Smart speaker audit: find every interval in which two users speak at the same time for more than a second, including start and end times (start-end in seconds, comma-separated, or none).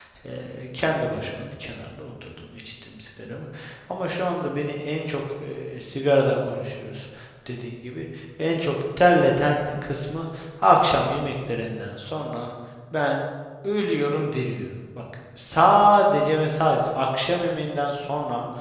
none